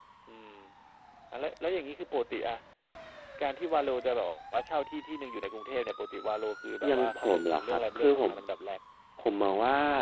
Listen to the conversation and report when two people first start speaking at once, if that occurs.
6.8 s

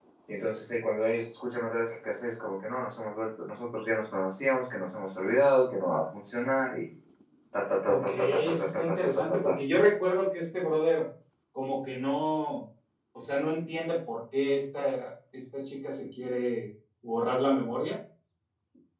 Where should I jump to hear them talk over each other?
7.8 s

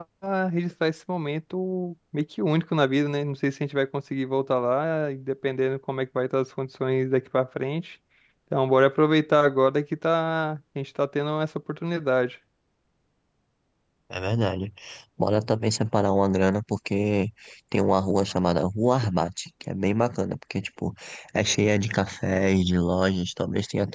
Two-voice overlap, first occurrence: none

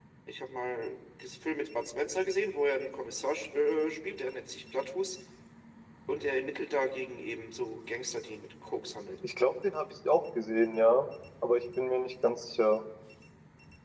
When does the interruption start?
none

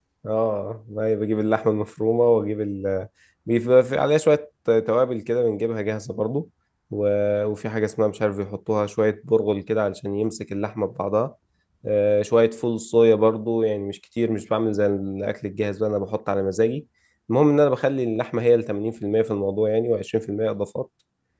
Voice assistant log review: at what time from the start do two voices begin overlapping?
none

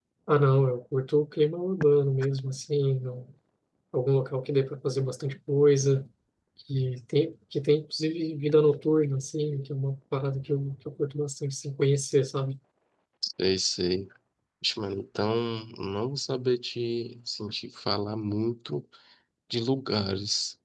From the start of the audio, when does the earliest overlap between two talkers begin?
none

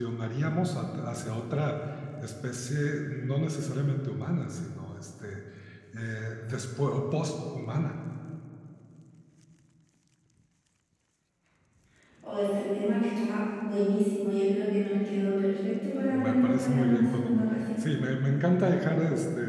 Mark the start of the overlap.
16.1 s

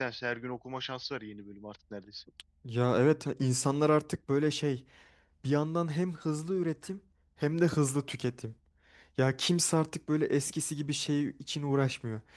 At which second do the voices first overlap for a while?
none

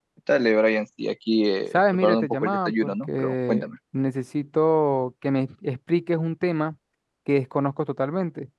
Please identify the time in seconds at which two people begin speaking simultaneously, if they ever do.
1.7 s

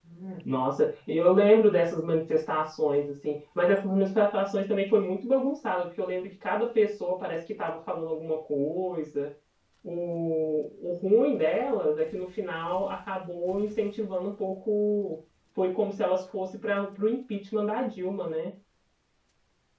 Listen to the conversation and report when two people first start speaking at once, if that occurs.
none

